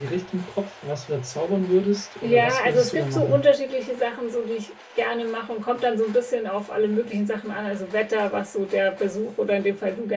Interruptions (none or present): present